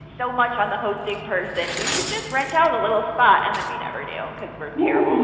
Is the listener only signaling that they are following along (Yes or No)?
No